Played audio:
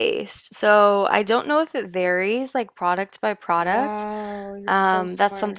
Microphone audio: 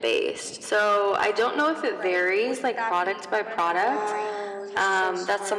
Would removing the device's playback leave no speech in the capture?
No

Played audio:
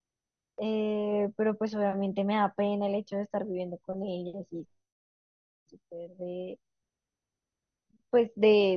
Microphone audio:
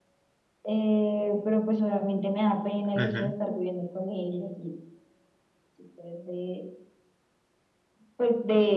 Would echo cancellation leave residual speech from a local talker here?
Yes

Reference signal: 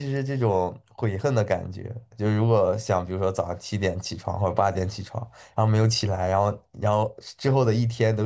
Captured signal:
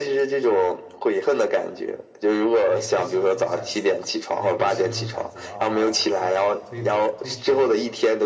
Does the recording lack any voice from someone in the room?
No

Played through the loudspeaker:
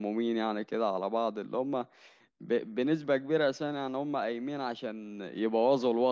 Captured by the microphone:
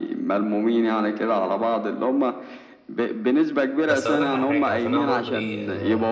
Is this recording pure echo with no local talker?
No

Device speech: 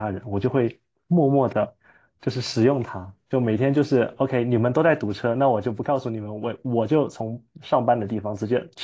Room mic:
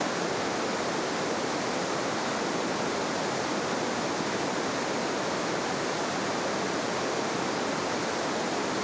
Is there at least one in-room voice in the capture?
No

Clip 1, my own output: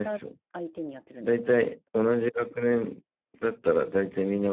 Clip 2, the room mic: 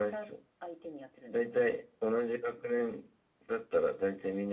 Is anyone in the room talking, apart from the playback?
No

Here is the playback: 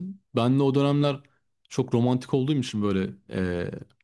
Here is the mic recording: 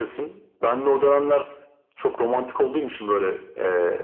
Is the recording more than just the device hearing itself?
No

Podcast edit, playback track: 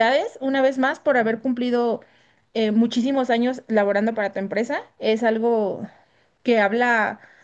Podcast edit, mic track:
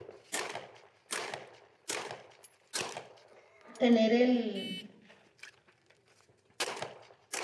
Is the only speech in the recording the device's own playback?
No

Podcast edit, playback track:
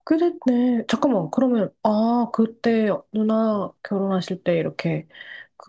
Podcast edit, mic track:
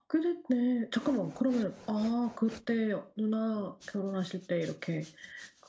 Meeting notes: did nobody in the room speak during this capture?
Yes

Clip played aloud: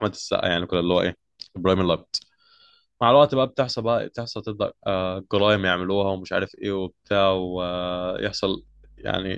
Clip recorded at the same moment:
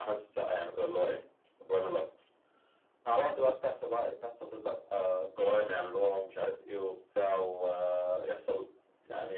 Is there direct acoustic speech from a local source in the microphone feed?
No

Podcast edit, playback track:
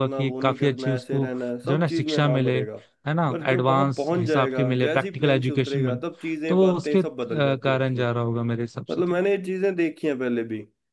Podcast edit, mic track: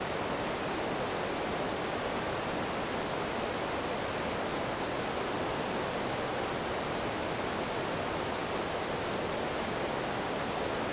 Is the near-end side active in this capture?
No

